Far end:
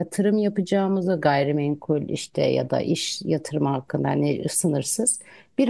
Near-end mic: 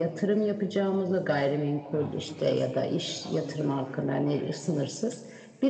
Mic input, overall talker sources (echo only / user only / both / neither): both